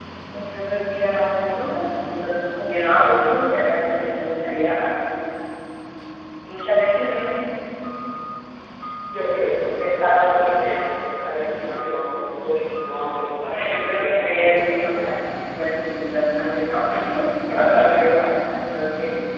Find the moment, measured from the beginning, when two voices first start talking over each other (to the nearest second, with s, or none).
13 s